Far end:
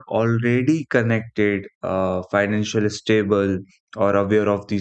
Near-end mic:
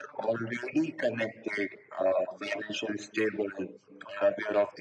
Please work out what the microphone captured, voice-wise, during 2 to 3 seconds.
echo only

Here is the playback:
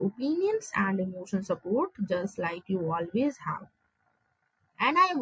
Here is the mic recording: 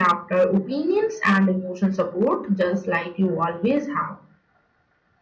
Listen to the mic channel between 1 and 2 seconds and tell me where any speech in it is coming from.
echo only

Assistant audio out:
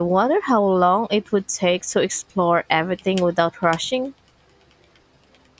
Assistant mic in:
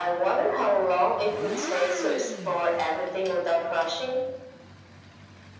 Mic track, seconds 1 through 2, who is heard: echo only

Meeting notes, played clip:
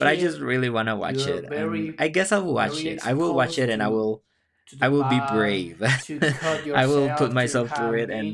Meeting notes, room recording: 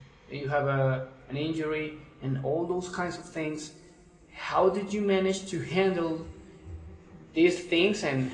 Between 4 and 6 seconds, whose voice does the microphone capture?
user only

